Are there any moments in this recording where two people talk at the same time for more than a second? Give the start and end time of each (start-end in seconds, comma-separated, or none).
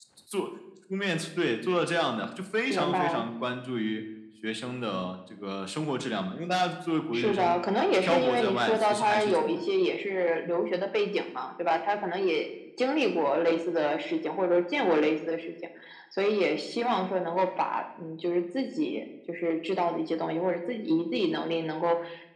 8.0-9.6